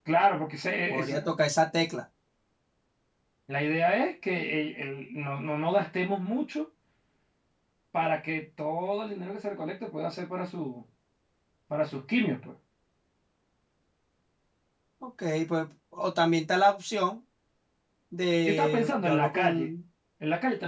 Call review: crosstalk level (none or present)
present